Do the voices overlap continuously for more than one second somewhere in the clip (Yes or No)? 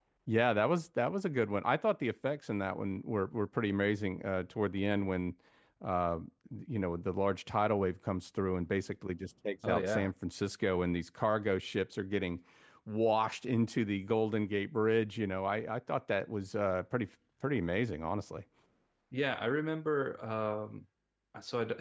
No